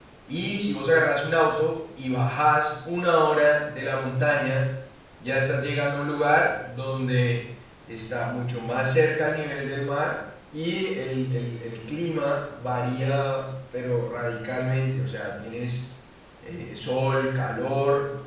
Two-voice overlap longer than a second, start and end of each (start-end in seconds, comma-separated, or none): none